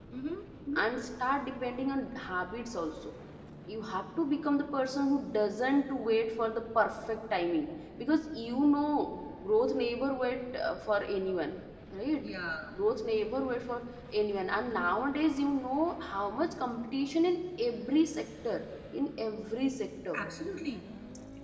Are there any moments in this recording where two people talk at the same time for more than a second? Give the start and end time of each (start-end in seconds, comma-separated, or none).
none